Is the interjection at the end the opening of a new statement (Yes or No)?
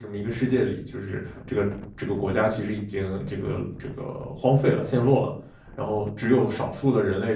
No